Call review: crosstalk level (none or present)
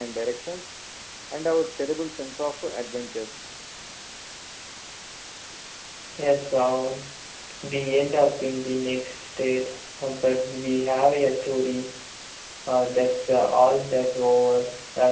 none